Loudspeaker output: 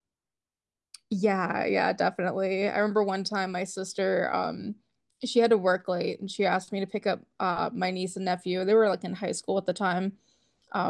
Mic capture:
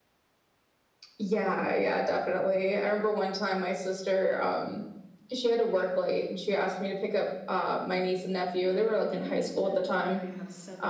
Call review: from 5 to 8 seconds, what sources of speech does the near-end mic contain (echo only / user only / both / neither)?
echo only